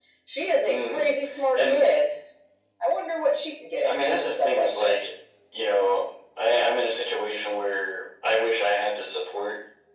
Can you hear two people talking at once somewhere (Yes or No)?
Yes